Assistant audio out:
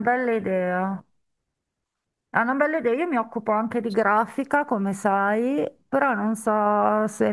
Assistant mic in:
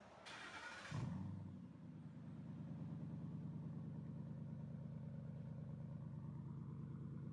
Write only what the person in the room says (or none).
none